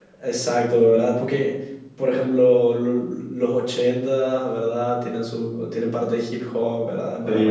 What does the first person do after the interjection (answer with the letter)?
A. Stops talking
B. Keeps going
B